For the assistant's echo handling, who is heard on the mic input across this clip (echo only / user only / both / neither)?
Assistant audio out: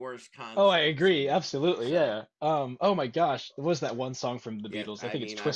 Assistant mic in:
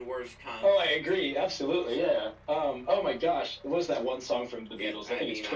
echo only